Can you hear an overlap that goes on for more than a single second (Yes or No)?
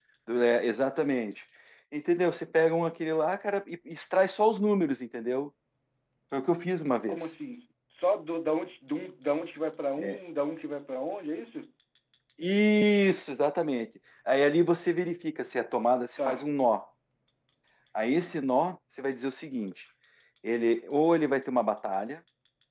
No